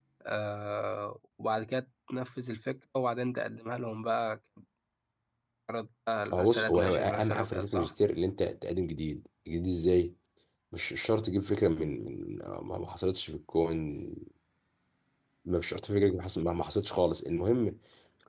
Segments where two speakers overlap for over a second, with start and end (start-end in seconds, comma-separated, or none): 6.3-7.9